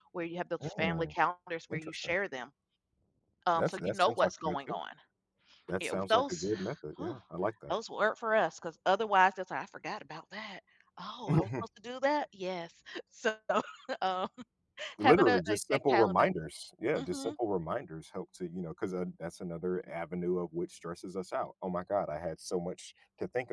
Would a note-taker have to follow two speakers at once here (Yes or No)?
Yes